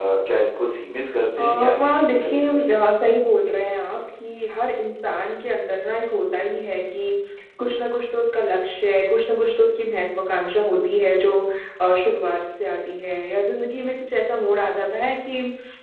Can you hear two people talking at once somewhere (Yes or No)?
Yes